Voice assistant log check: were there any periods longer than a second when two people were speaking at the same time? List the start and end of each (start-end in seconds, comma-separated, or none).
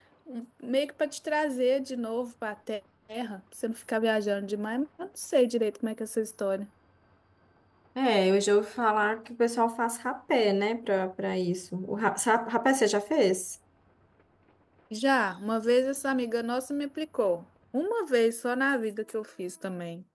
none